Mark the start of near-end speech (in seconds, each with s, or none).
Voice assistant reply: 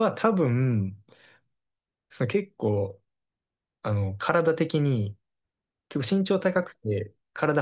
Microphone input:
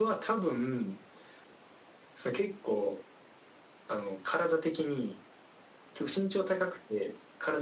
none